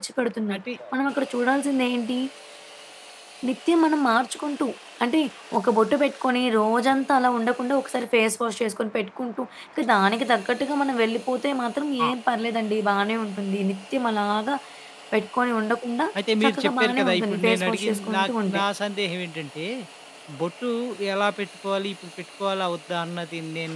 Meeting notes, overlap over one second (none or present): present